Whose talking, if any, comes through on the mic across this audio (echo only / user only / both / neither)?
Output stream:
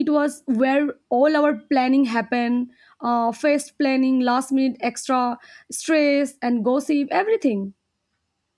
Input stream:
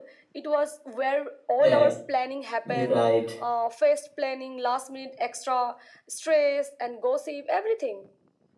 both